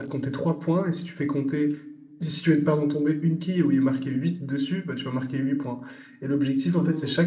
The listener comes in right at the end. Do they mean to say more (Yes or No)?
No